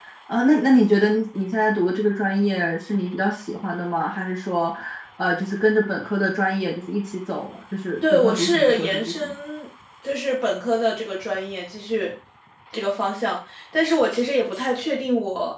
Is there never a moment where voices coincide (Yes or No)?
No